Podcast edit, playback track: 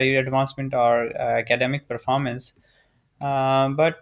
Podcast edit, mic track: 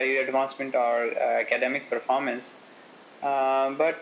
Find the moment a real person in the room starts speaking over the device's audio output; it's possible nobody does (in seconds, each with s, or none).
none